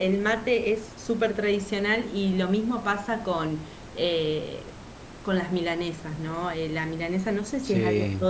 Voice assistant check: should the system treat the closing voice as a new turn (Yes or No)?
No